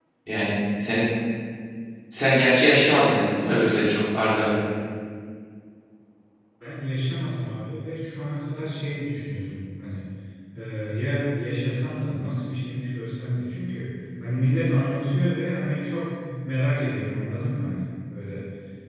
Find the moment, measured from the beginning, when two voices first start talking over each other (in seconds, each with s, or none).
none